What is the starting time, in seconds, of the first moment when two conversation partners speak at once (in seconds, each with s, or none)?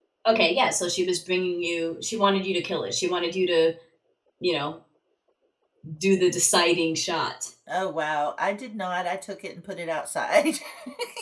none